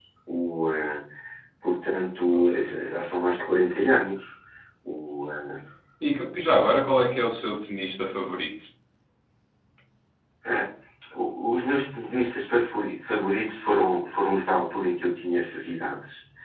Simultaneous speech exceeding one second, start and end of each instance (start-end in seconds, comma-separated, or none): none